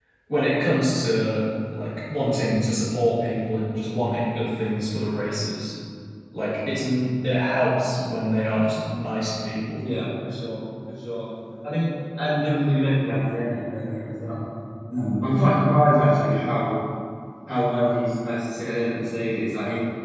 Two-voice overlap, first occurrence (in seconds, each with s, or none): none